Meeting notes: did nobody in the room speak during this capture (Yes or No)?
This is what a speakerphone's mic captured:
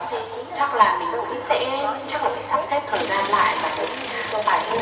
Yes